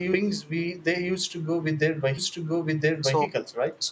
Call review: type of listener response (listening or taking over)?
taking over